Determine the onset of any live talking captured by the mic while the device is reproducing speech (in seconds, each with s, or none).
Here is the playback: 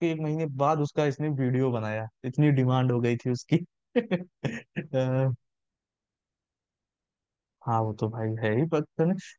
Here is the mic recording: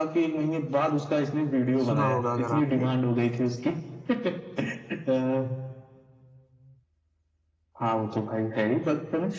1.9 s